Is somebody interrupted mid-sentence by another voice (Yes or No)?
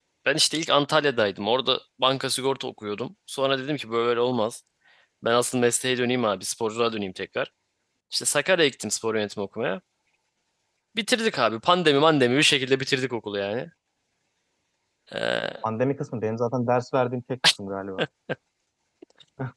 No